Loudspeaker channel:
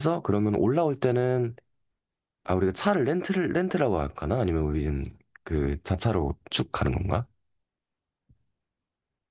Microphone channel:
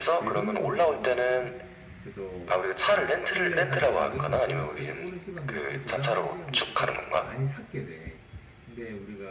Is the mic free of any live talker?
No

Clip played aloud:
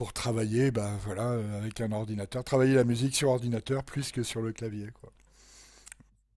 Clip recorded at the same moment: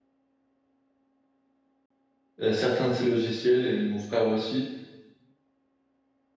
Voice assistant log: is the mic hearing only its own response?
No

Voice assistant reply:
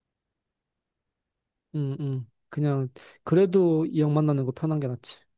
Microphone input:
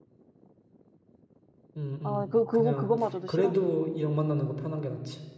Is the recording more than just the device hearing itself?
Yes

